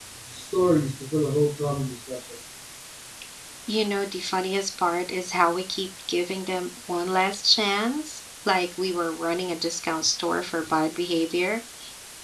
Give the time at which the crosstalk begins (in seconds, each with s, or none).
none